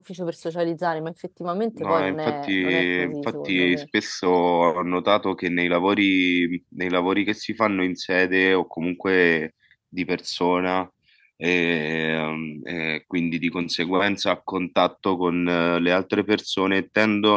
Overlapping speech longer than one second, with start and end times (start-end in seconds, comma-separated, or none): 1.8-3.8